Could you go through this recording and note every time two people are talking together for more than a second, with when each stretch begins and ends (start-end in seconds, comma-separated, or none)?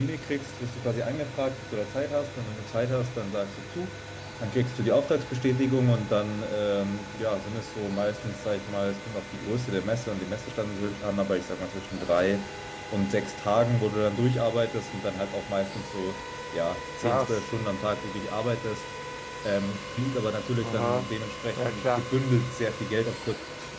none